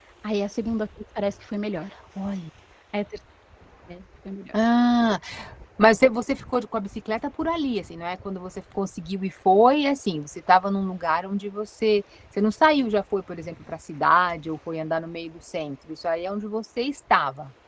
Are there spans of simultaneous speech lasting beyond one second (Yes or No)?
No